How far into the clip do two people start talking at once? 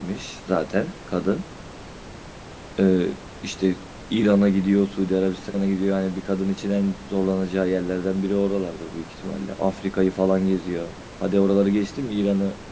none

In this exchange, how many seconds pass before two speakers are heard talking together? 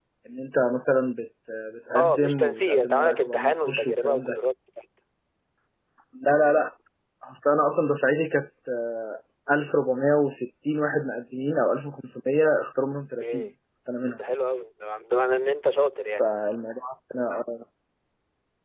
2 s

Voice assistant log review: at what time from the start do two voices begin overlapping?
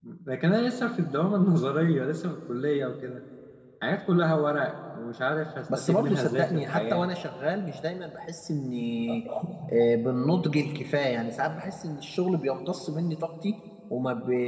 6 s

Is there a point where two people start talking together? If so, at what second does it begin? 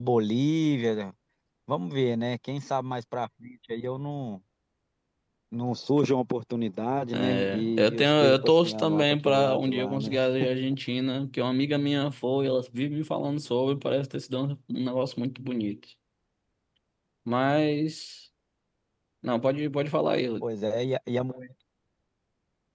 7 s

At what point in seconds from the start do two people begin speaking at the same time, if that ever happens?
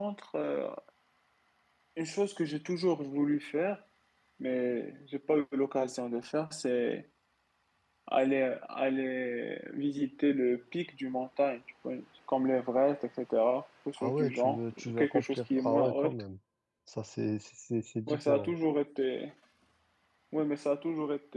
14 s

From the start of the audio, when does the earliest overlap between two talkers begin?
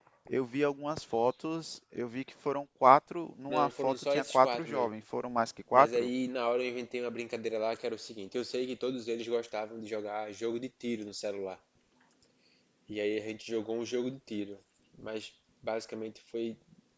3 s

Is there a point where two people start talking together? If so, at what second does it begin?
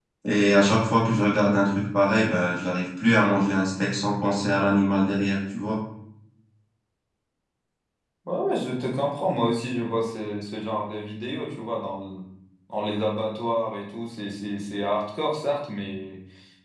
none

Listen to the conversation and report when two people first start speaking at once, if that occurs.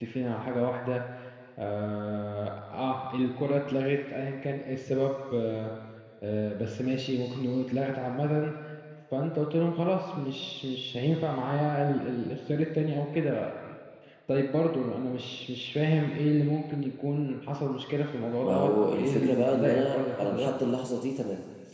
18 s

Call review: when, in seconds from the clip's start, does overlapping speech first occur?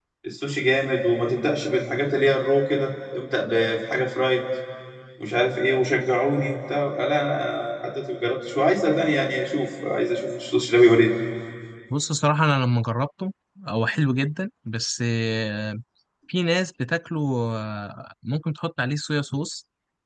none

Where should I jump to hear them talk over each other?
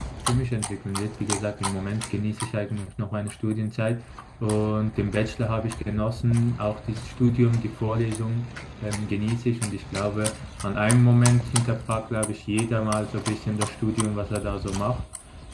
none

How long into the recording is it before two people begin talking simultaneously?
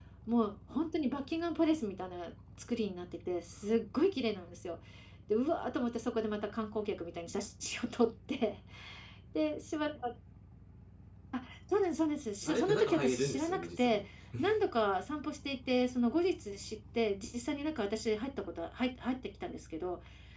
12 s

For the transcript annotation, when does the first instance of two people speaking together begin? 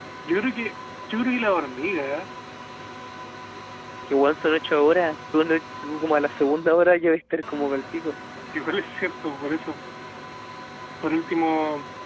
none

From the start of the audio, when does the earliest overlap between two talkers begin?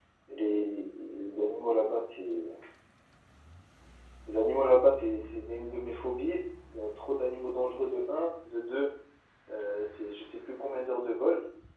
none

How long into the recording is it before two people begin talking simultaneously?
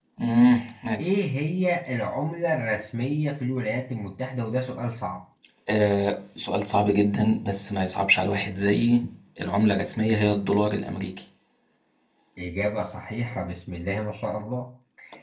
none

